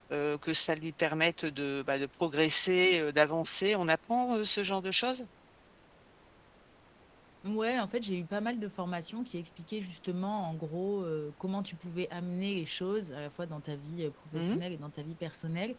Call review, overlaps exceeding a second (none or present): none